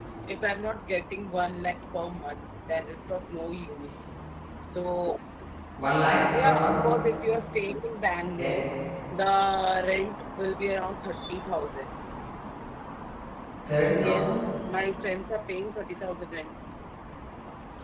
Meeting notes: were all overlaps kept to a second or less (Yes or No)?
Yes